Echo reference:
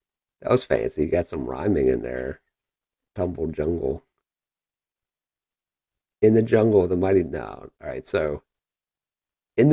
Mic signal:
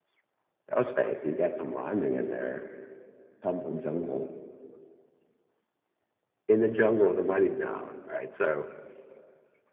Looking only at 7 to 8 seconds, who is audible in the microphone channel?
echo only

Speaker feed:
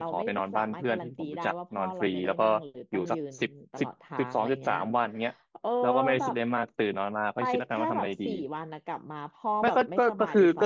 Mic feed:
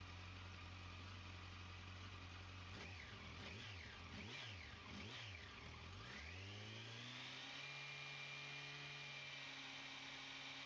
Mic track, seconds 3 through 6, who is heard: neither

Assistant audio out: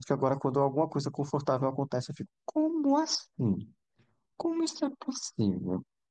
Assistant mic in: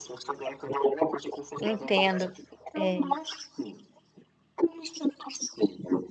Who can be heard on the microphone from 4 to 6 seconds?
echo only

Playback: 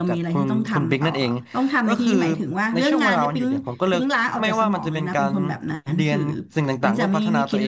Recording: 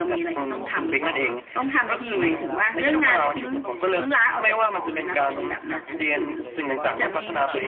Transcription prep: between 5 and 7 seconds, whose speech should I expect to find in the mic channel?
both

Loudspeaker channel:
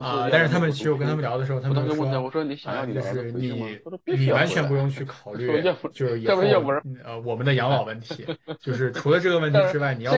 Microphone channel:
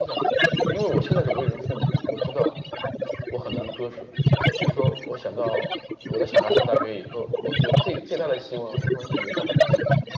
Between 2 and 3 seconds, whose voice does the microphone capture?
both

